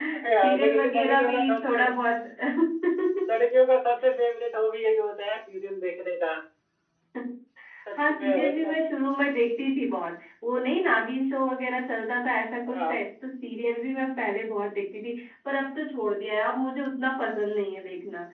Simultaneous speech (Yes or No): Yes